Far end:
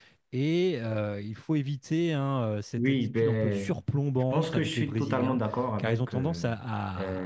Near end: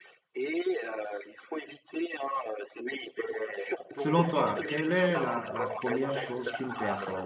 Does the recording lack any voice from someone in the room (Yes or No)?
No